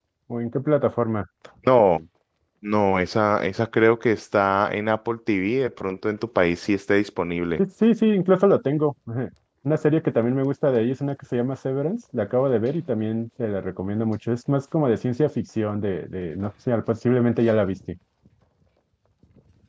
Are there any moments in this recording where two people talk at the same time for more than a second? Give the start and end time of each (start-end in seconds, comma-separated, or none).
none